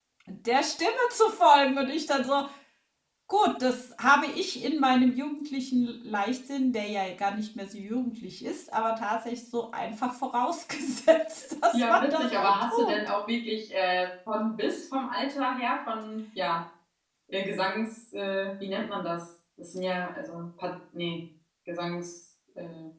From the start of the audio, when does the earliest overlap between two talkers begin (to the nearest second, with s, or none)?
12 s